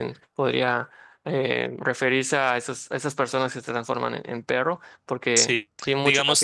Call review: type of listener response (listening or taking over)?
taking over